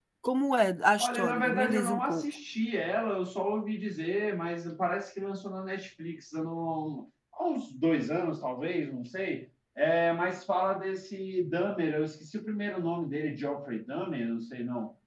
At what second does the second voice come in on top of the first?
1 s

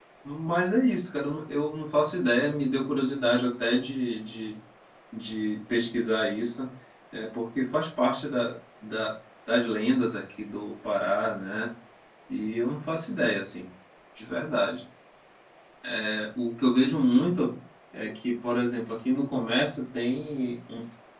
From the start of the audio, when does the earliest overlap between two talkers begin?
none

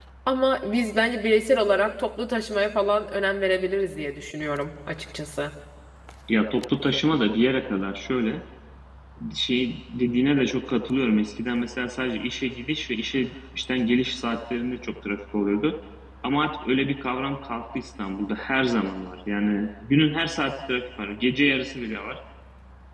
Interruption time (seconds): none

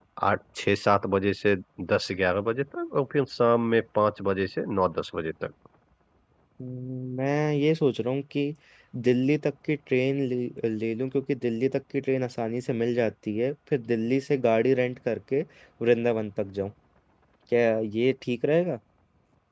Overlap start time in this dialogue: none

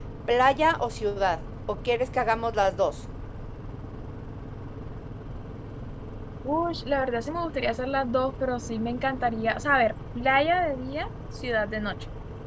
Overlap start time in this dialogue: none

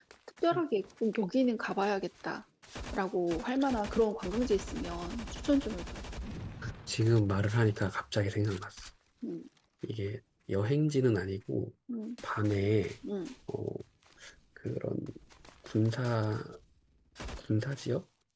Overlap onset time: none

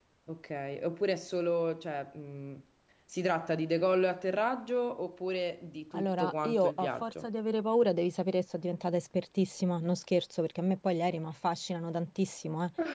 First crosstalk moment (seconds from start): 6 s

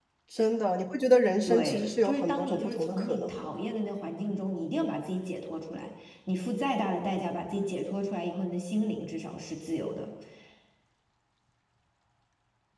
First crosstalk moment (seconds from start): 1 s

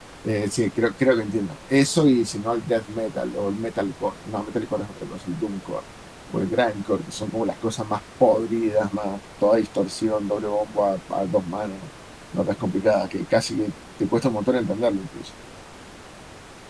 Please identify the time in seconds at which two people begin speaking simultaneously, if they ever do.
none

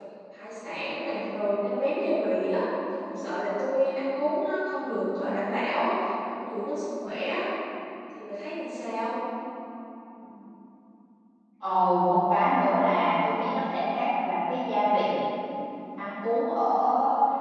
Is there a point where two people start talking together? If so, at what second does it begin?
none

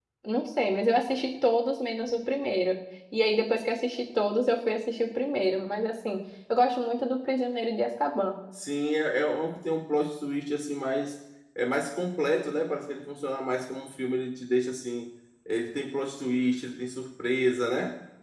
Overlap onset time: none

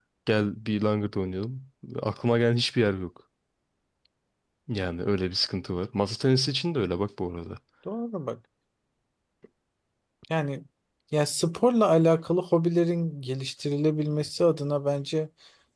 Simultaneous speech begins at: none

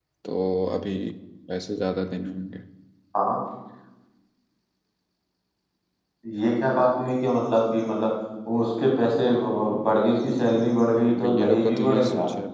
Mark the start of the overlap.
11 s

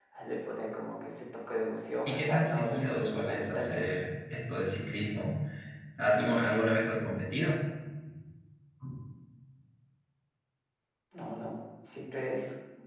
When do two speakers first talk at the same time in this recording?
2 s

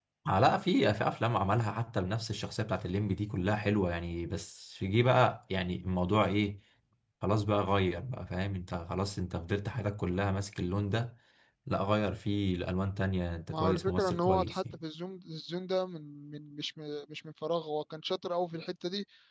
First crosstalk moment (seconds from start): 13 s

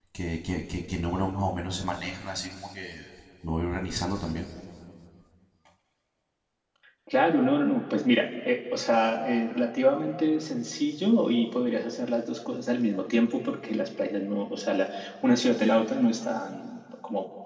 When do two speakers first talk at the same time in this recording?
none

